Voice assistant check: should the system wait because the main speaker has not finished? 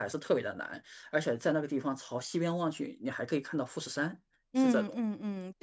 No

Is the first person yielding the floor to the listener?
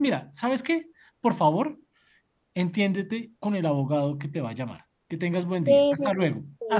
Yes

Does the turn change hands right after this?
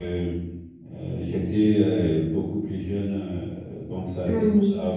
No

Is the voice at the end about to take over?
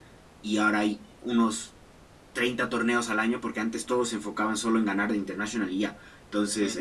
No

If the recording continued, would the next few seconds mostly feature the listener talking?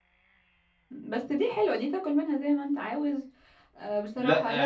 Yes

